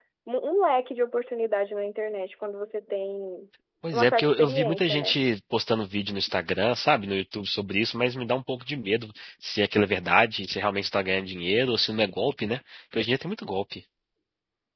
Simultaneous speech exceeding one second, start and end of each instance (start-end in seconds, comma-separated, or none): 3.9-5.2